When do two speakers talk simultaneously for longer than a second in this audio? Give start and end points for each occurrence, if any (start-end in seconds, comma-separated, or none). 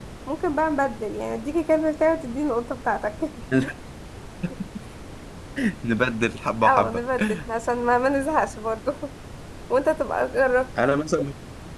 none